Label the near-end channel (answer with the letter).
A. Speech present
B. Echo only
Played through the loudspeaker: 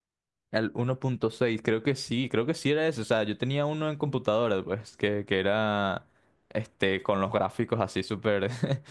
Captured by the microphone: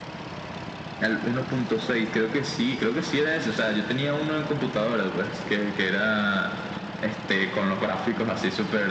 B